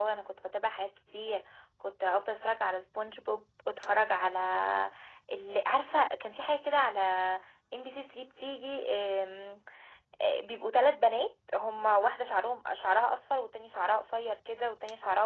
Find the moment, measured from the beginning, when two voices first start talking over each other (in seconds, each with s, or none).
none